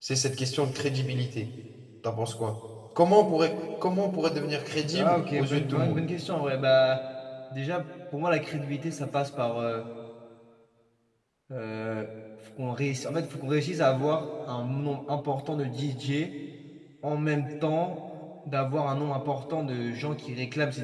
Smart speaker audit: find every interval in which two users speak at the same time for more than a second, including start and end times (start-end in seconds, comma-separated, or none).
4.7-6.0